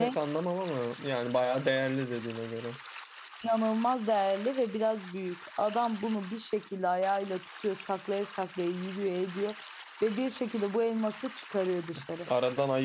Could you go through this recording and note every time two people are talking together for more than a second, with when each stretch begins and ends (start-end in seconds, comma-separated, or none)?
none